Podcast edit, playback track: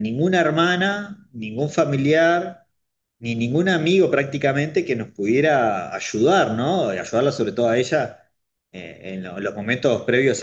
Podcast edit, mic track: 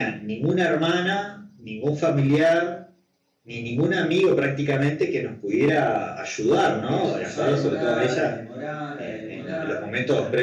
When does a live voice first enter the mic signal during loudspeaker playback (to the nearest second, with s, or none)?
7 s